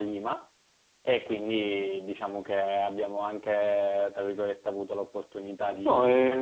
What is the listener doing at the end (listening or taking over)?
listening